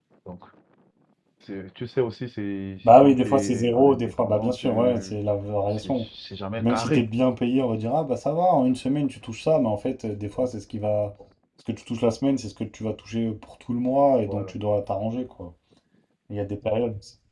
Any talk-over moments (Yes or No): Yes